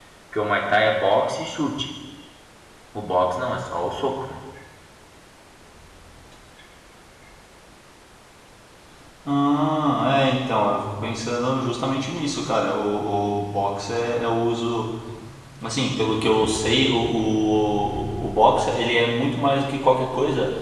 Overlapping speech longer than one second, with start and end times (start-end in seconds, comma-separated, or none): none